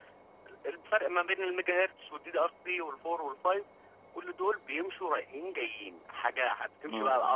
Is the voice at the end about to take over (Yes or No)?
No